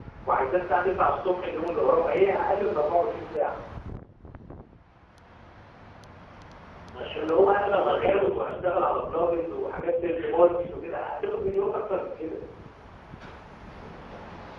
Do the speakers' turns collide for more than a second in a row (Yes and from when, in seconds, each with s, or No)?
Yes, from 6.9 s